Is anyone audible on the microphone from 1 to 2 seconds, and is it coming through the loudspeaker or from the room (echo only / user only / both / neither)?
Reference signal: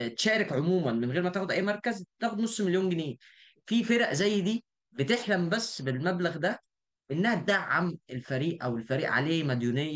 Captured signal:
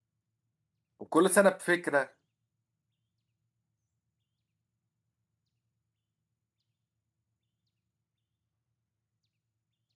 user only